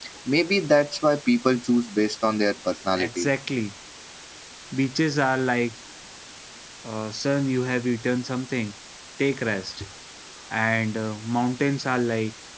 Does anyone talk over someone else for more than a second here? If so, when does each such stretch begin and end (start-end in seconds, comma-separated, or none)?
none